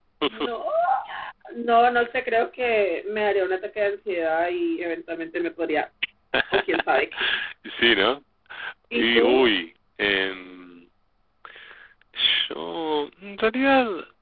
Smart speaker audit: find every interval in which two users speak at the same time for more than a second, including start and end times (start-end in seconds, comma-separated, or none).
none